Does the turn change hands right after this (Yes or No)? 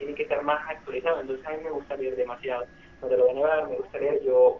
No